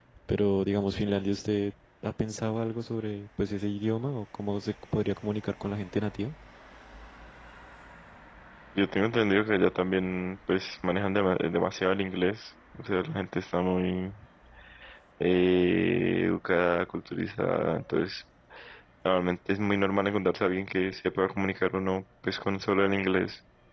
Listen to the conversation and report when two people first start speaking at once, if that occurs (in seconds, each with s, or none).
none